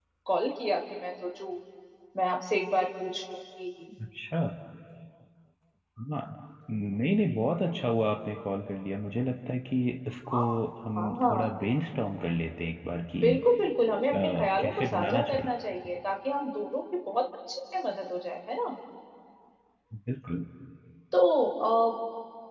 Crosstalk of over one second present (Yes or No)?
Yes